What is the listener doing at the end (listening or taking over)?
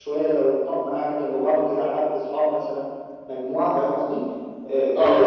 listening